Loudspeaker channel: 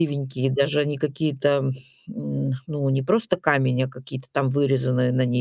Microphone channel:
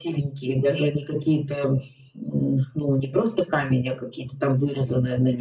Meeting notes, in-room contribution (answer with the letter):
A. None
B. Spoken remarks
A